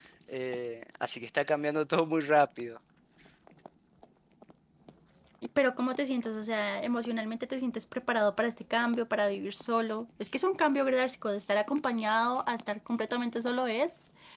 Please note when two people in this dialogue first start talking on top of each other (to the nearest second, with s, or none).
none